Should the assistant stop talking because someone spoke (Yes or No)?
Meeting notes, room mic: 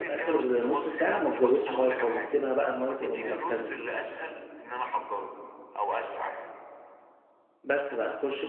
Yes